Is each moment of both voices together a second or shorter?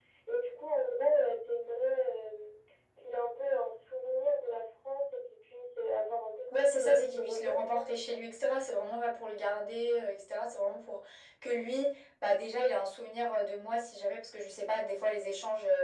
No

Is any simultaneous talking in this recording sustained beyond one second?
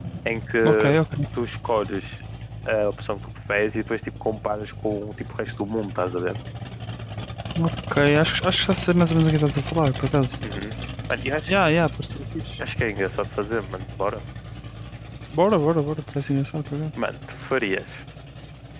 No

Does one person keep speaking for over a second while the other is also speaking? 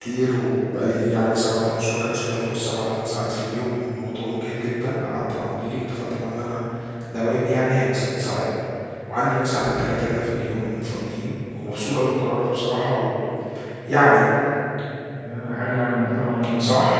No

